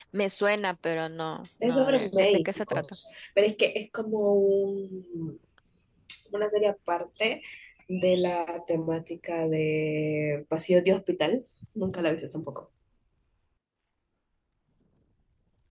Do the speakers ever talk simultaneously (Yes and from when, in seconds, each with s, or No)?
Yes, from 1.6 s